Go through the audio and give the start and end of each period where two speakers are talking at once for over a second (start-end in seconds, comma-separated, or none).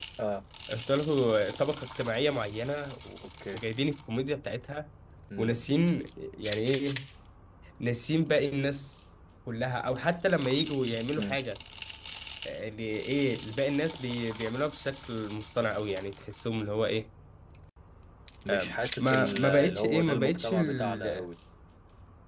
19.0-21.2